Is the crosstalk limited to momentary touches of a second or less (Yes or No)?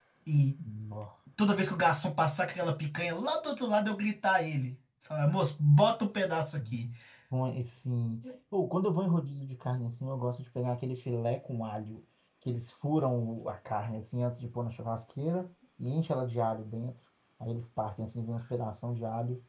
Yes